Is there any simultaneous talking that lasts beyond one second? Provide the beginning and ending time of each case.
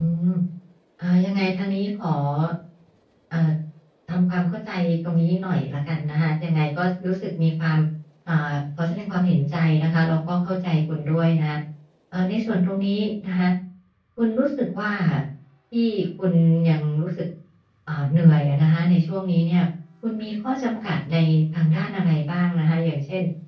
none

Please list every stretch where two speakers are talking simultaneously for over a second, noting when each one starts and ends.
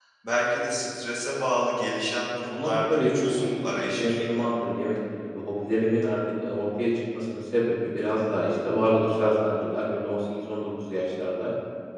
2.4-4.3

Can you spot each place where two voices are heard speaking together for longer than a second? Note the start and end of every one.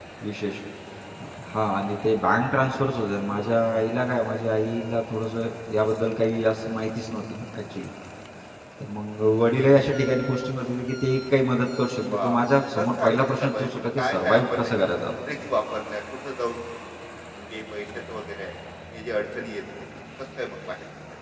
12.1-14.7

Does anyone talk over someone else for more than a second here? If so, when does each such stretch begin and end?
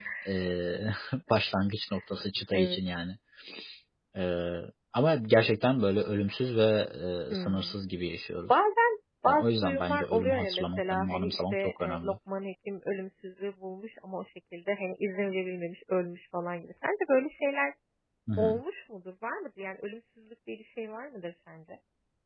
9.3-12.1

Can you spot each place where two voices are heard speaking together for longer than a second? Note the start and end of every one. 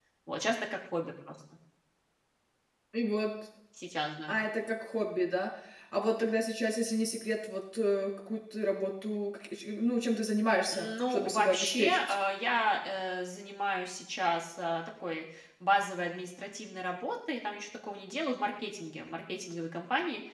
10.7-12.0

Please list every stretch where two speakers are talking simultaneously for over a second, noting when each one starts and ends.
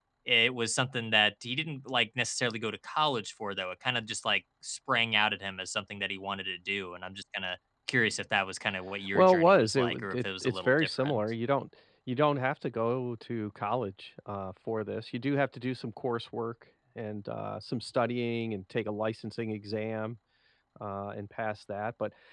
9.2-11.2

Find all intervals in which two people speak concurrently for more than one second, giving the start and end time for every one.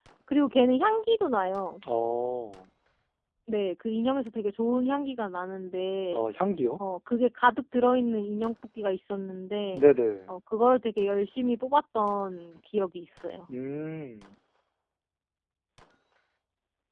none

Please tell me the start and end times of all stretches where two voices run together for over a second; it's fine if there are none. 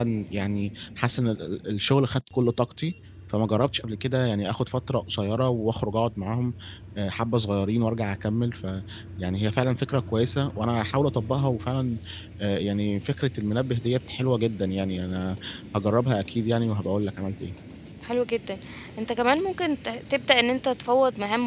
none

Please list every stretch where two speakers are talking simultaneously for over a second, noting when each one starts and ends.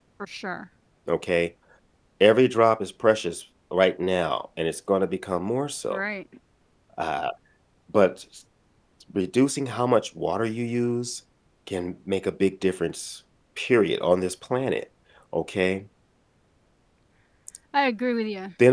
none

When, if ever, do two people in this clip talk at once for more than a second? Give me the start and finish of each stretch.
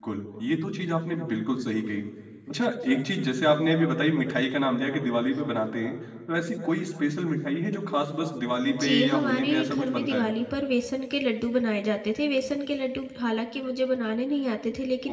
8.7-10.3

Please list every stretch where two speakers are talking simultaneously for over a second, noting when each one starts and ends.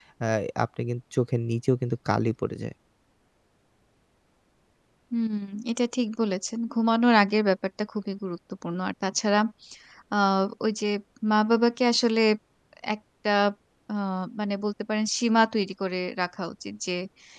none

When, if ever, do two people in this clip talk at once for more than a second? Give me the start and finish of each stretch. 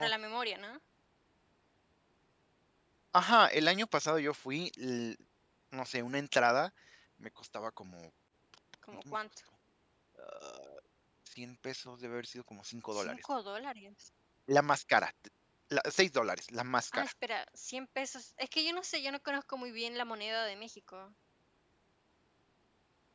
none

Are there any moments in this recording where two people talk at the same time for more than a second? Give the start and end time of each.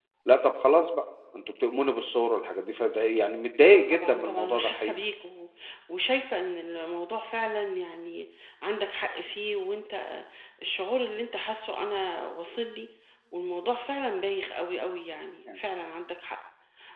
3.7-4.9

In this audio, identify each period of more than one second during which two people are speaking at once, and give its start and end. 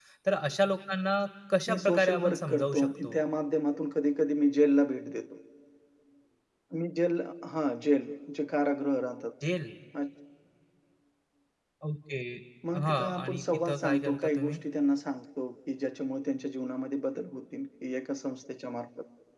1.7-3.2, 12.8-14.6

